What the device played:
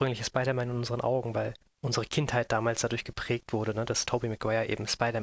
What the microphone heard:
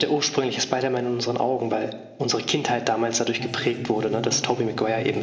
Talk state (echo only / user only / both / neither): both